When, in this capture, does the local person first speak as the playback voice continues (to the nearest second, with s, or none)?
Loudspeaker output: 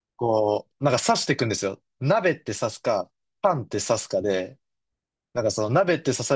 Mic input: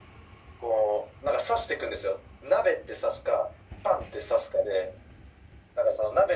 none